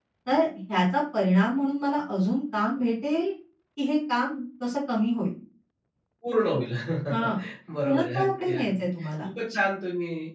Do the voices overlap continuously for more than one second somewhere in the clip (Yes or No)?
Yes